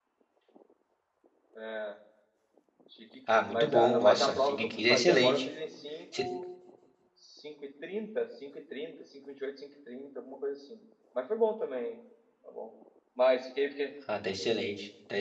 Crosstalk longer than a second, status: present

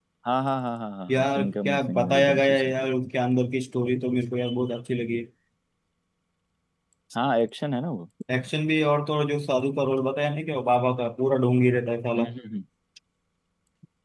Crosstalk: present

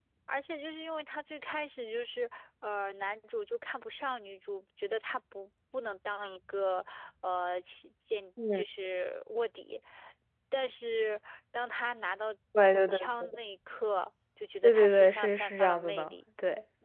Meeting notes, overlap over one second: present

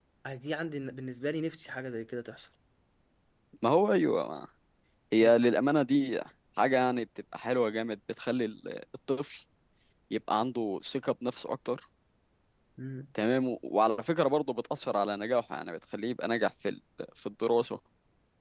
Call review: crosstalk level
none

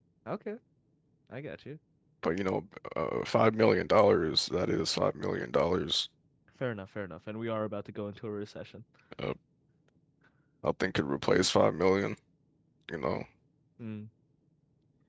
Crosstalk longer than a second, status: none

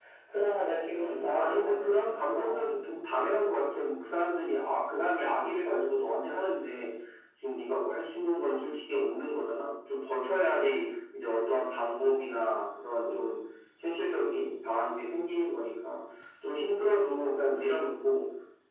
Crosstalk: present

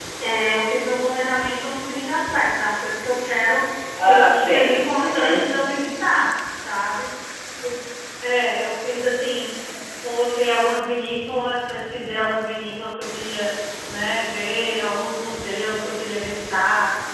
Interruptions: present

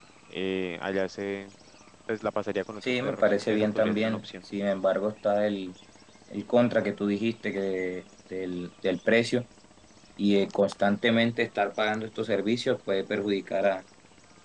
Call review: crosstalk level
present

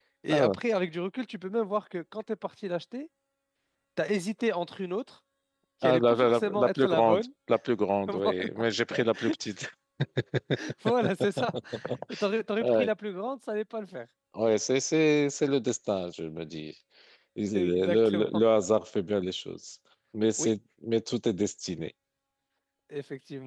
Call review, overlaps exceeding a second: present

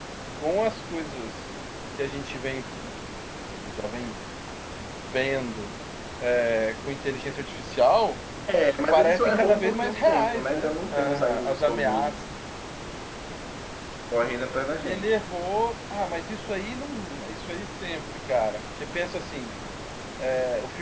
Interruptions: present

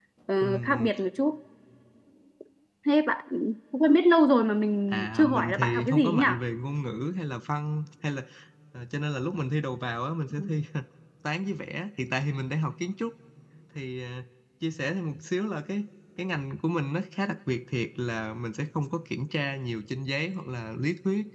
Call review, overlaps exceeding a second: present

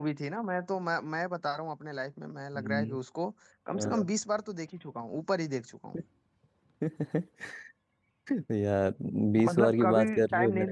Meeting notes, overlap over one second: present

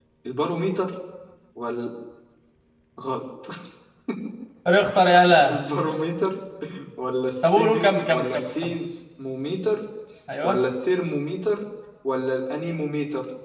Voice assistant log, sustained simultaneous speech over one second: present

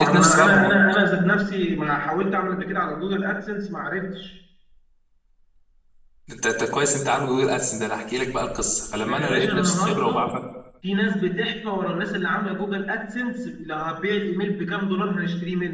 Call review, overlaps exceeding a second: present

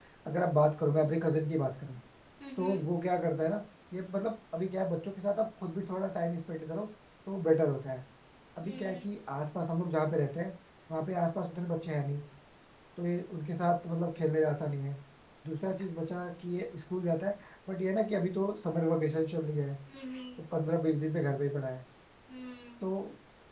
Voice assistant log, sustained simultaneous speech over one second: none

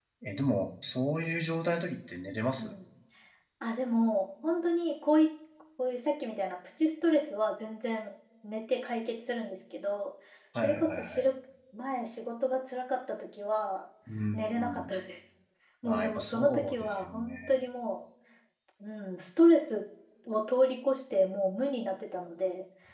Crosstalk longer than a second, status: present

